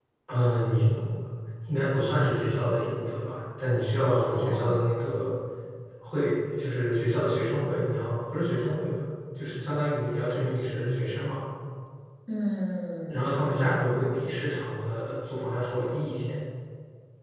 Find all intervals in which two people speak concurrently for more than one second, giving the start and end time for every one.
none

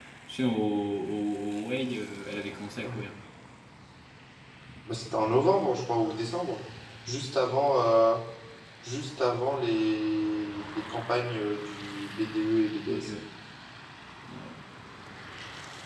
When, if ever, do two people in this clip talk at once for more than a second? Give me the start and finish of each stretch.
none

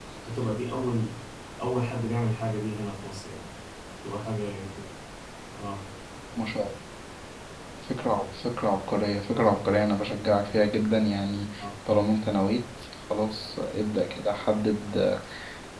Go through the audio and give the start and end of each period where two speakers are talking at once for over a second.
none

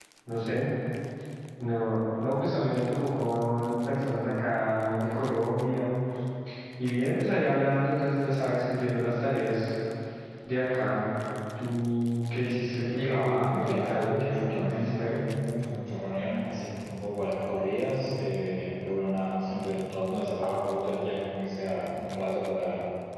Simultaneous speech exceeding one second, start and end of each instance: 13.0-15.3

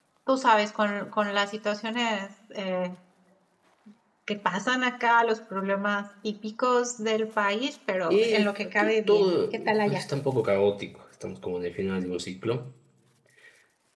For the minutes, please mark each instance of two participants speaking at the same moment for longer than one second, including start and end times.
8.1-10.0

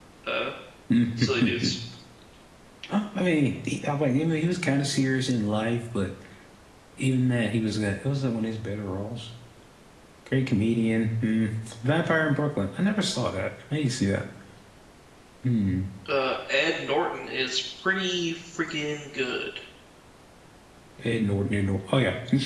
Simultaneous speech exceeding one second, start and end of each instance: none

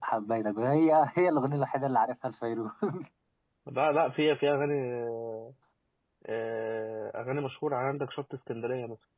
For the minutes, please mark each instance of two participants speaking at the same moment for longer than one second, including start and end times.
none

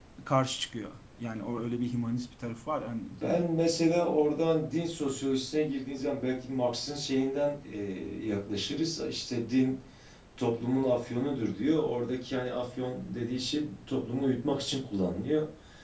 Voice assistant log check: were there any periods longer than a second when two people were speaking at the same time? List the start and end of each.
none

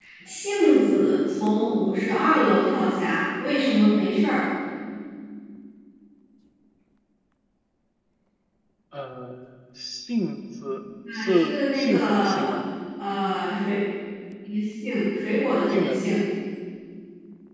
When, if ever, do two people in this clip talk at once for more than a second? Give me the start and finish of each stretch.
11.1-12.5

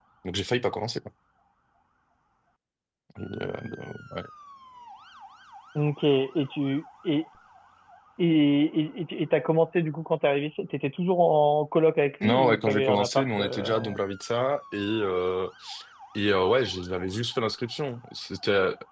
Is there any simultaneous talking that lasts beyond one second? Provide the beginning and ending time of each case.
12.2-14.0

